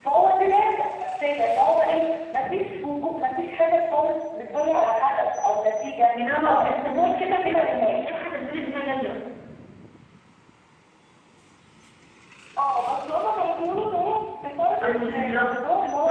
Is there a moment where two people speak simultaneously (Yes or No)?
Yes